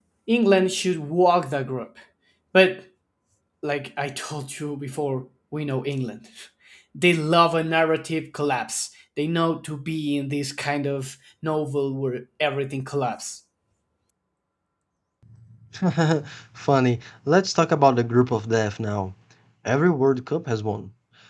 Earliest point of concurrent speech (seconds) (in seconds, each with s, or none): none